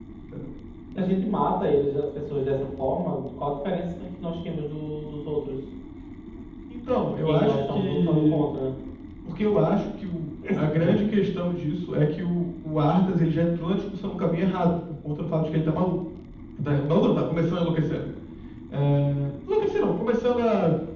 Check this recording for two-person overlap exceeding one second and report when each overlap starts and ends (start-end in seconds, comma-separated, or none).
7.0-8.4